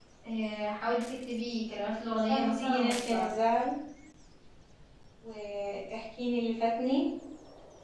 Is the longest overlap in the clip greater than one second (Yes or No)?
Yes